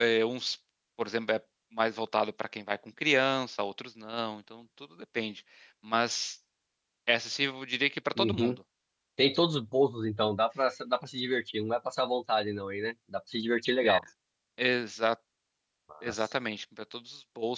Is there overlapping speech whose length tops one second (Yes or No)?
No